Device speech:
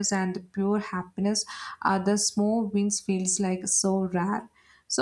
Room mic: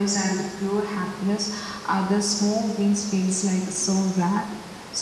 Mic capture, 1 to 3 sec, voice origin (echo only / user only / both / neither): echo only